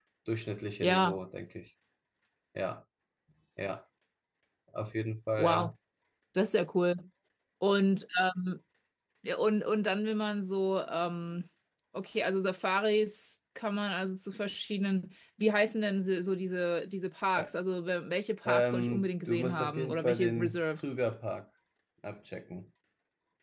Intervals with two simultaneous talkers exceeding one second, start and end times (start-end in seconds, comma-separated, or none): 18.4-20.8